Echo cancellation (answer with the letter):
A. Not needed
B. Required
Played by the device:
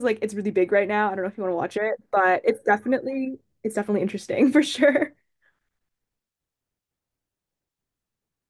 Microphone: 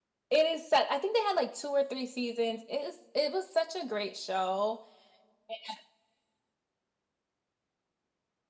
A